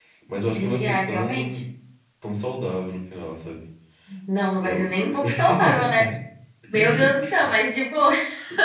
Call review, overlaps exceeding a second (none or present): present